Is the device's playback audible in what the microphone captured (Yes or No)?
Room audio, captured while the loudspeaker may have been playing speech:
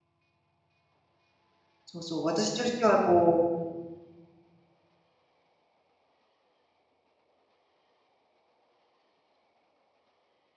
No